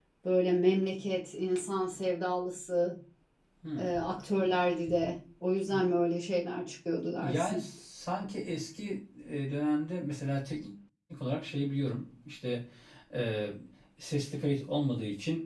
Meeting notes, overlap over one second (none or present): none